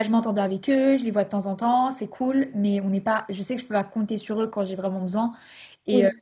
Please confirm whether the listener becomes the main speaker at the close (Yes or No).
No